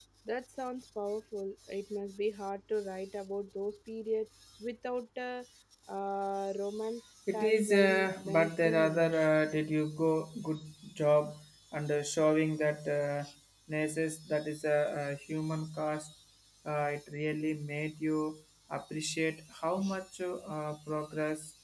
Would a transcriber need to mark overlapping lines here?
Yes, from 7.3 s

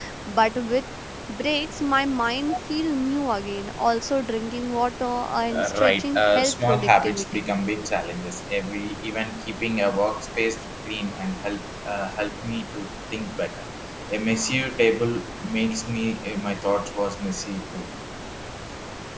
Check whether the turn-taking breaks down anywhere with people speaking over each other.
Yes, from 5.5 s

